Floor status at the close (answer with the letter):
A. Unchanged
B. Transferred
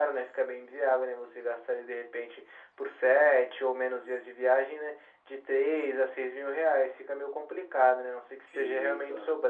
A